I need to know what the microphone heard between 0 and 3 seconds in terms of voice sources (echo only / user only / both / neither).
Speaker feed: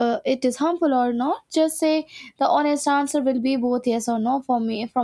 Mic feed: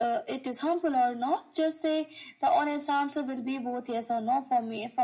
echo only